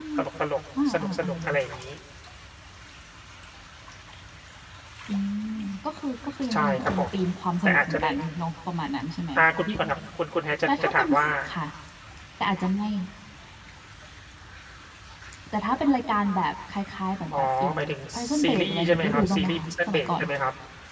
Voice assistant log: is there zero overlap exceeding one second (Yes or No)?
No